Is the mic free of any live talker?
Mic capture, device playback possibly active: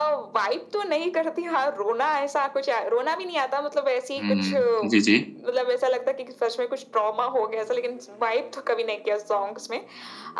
No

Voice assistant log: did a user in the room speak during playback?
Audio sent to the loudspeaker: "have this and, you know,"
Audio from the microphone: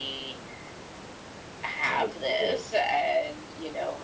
Yes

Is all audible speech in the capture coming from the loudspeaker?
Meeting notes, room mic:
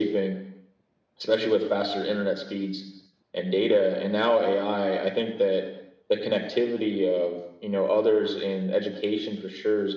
Yes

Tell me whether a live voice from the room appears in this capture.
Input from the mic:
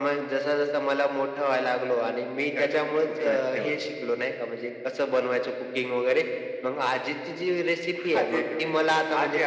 Yes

